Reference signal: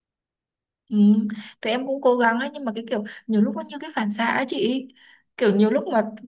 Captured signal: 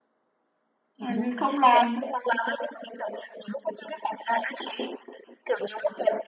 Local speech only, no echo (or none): Ờ, không làm